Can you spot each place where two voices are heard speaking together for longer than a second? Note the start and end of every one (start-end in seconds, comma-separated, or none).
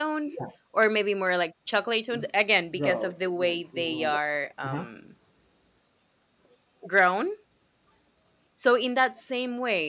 2.8-4.1